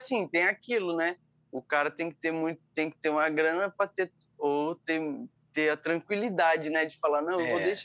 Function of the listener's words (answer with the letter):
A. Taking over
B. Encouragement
B